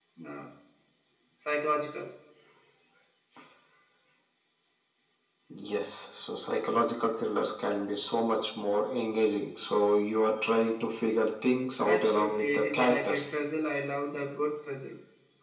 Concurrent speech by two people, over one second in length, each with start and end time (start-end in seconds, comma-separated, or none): 11.8-13.3